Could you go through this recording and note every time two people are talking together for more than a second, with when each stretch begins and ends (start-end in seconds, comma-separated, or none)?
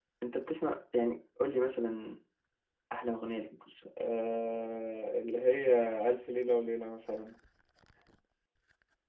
none